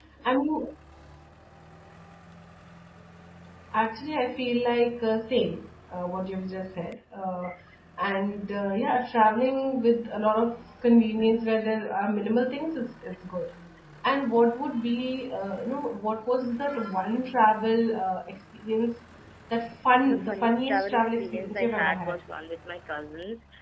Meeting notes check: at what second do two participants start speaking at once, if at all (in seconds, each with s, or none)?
20.0 s